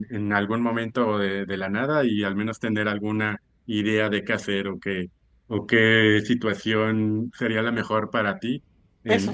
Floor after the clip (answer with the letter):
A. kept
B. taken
B